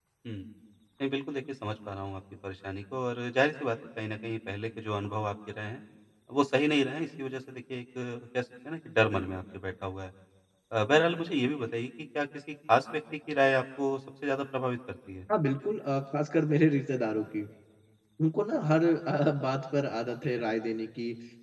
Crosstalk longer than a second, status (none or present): none